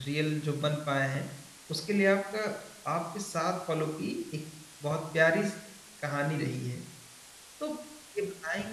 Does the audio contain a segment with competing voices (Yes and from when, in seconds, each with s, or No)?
No